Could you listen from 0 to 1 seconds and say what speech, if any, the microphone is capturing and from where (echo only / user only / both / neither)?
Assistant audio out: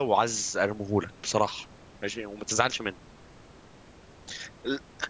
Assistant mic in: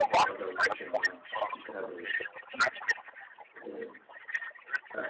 both